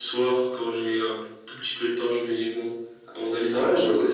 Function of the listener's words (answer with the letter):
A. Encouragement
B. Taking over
B